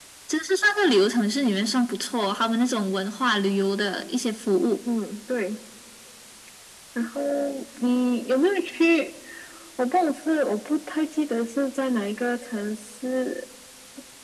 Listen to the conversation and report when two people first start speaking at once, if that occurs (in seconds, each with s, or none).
none